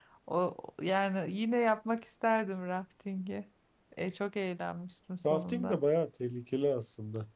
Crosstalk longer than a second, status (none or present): none